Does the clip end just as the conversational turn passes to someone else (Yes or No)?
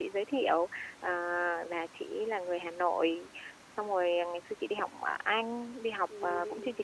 No